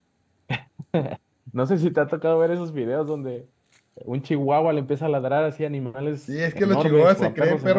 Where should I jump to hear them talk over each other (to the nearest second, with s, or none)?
6 s